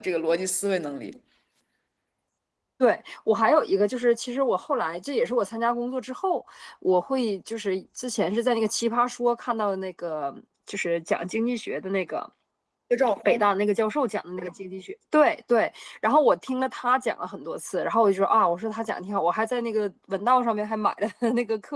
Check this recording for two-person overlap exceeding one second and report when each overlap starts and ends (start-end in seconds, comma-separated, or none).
none